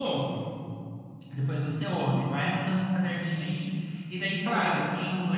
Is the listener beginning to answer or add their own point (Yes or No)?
No